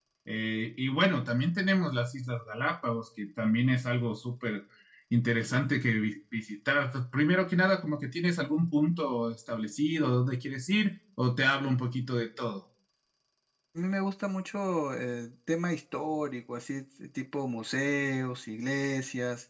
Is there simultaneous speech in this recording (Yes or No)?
No